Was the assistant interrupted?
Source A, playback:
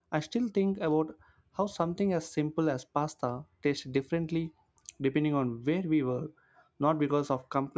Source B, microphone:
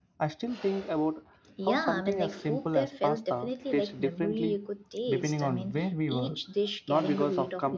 Yes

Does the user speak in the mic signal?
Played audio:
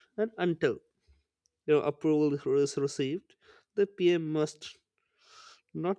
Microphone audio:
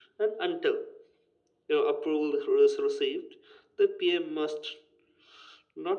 No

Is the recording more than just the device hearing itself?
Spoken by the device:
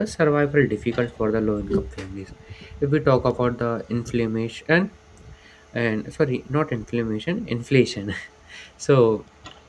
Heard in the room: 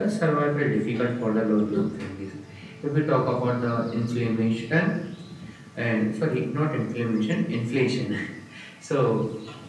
No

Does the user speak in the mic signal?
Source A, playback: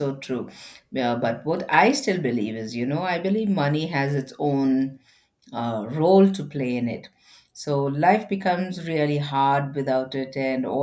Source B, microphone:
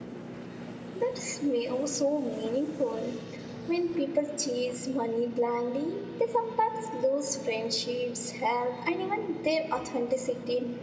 Yes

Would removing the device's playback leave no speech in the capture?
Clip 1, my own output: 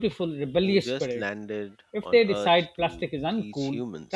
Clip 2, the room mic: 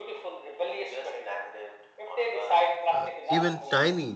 No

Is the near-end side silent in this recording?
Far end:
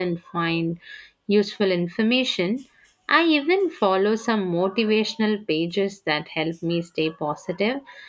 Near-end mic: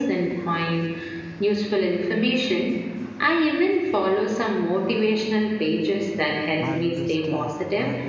No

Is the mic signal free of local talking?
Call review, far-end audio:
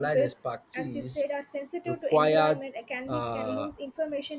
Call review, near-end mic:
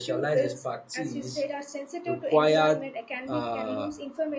Yes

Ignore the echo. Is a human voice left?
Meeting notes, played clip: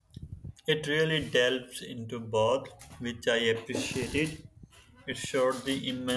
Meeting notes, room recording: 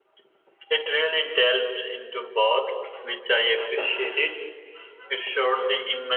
No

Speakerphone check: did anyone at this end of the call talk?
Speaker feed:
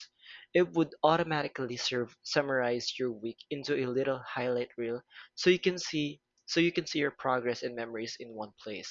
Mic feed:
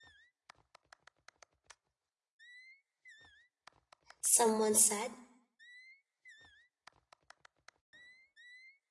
Yes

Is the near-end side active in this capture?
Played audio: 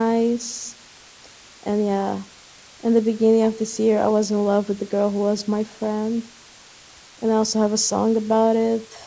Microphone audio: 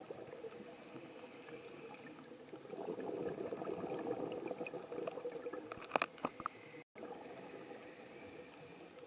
No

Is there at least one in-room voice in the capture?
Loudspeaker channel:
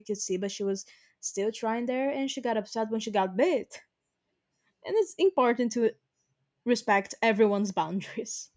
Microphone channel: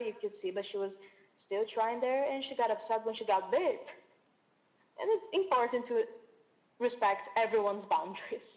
No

